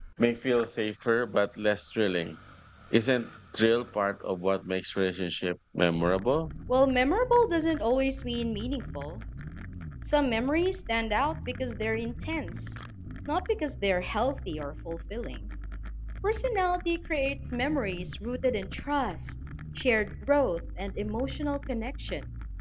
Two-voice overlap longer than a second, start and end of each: none

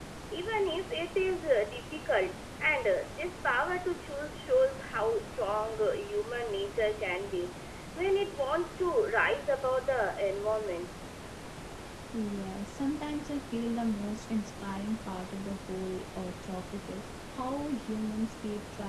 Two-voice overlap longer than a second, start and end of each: none

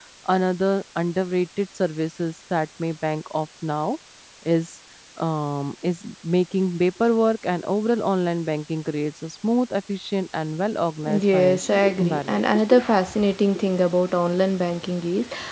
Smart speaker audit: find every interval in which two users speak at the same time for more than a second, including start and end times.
11.1-12.6

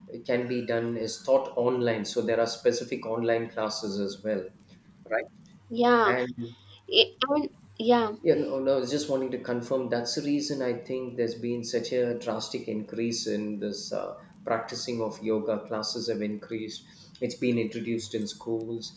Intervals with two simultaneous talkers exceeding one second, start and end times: none

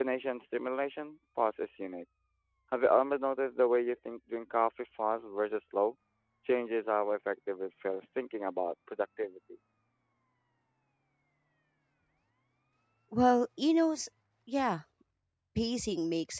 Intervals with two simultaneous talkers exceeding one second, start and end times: none

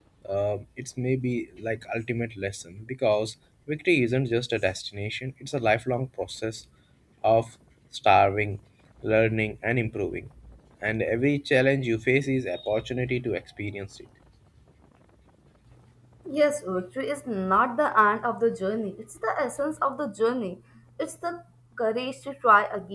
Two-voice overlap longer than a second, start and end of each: none

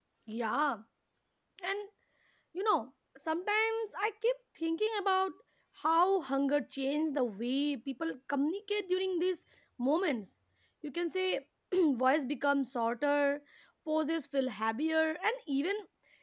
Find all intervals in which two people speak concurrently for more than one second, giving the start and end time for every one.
none

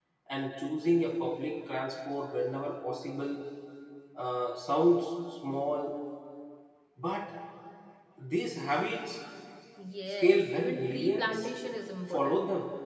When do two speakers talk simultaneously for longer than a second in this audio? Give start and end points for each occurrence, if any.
10.2-11.4

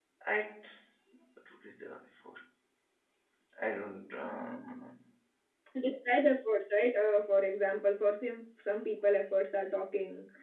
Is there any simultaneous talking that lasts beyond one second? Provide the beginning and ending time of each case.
none

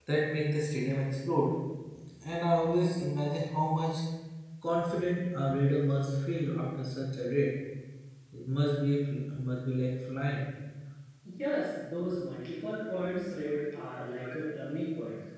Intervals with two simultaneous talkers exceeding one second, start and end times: none

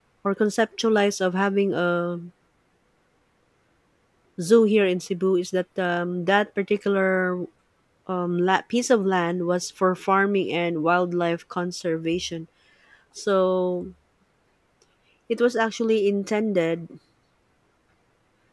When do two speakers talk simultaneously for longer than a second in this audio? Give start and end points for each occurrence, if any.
none

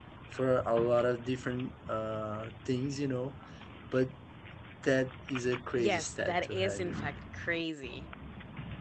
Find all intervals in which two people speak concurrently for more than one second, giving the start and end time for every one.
5.8-7.1

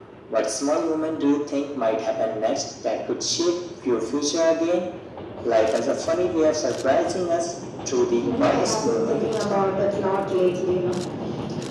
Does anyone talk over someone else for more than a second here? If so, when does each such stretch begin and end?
8.1-9.3

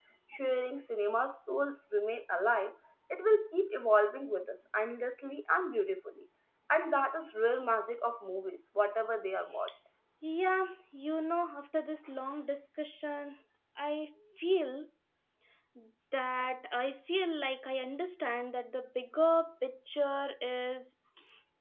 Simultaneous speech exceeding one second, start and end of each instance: none

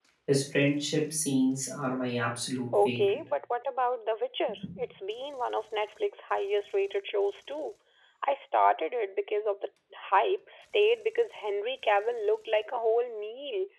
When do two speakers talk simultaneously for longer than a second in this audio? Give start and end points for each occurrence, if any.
none

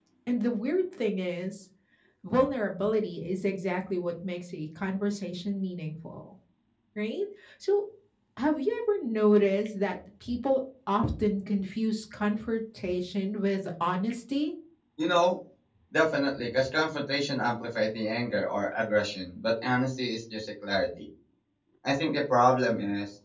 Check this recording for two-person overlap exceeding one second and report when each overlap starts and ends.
none

